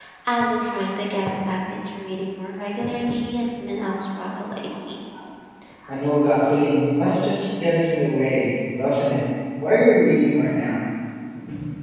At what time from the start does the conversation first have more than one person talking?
none

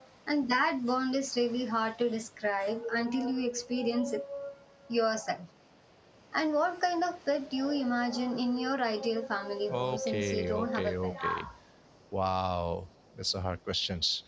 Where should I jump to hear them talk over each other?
9.7 s

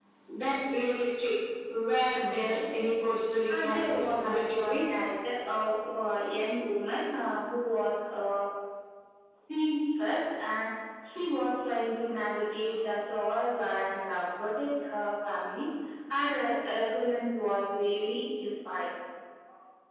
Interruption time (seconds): 3.5 s

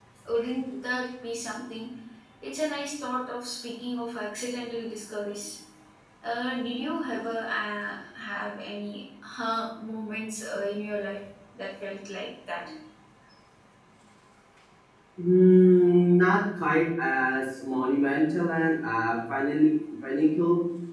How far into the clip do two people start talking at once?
none

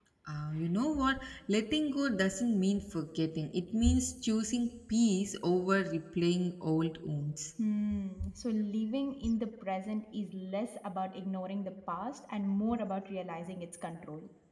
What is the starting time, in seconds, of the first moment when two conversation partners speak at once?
none

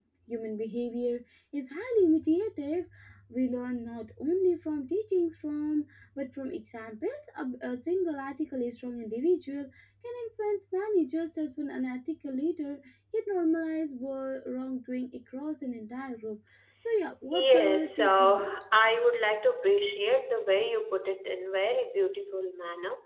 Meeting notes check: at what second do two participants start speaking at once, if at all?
17.3 s

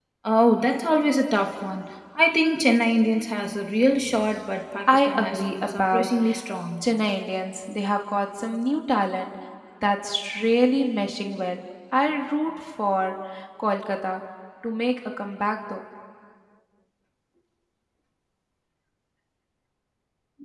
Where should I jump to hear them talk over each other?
4.8 s

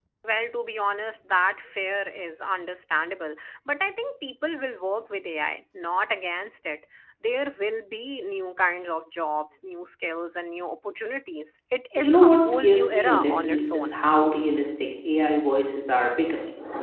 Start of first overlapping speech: 12.0 s

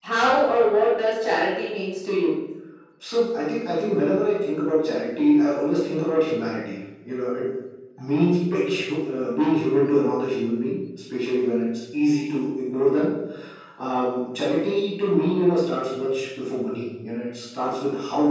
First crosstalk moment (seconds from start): none

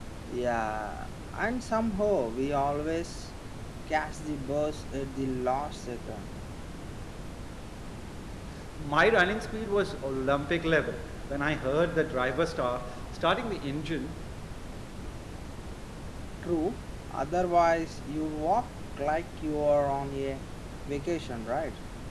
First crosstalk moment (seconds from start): none

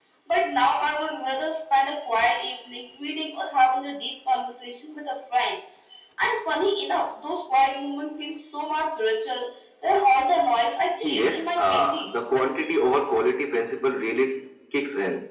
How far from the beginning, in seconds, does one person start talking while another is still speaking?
11.0 s

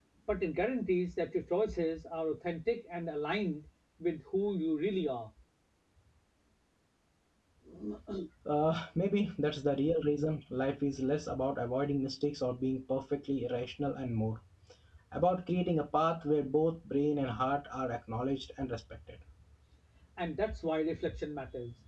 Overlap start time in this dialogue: none

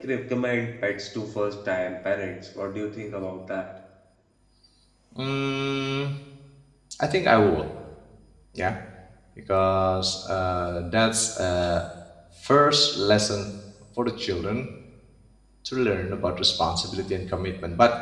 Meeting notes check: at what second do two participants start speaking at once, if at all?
none

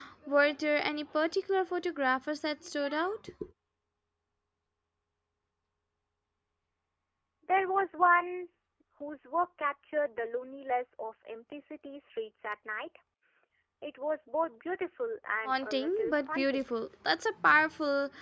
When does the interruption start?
15.4 s

